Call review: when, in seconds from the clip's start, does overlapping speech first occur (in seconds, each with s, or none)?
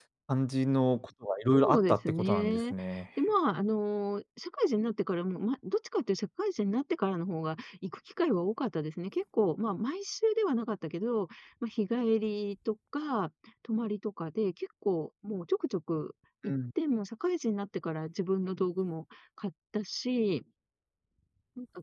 1.5 s